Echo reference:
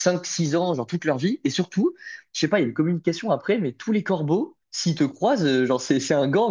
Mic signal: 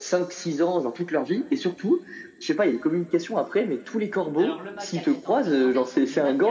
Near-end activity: present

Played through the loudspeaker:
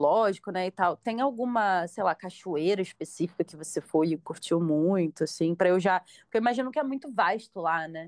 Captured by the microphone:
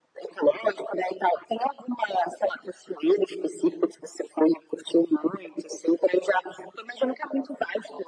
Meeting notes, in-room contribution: none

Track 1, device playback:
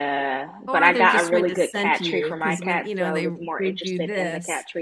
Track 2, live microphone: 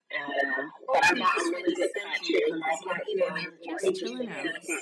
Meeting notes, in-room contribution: present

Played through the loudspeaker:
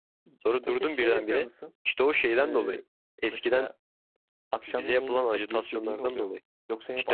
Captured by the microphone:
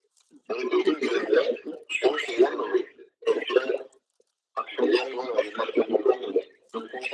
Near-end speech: none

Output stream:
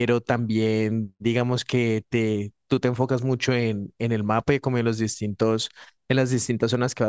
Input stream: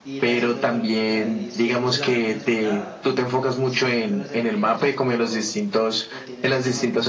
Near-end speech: present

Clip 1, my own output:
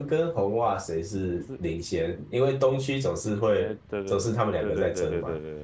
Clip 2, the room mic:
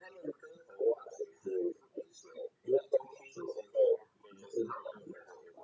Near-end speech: none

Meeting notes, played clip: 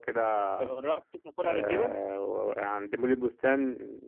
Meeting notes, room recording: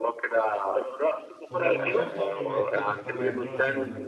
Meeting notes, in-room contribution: present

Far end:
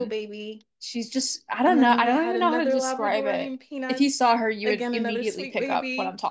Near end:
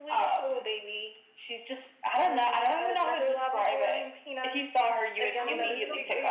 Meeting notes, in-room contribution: present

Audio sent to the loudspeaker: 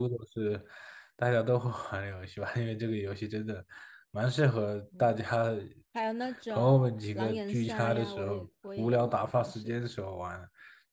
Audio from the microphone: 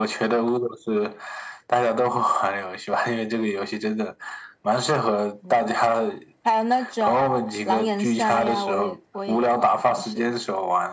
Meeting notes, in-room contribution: none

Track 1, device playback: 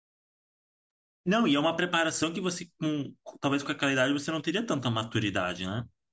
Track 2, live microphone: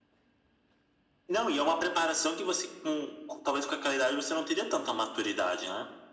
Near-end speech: none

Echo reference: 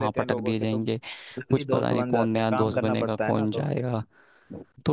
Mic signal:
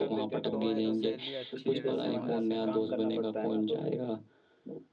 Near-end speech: present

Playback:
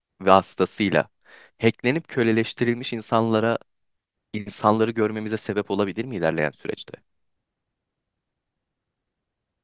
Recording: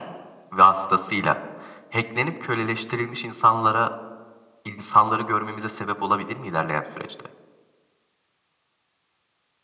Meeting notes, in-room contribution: none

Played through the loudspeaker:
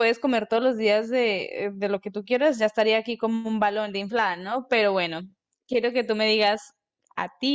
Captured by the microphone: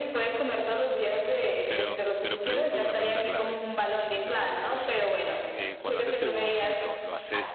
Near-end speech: present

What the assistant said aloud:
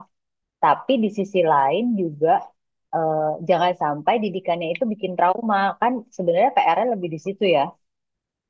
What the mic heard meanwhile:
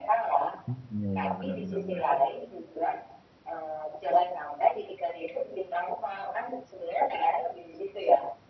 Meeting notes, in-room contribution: present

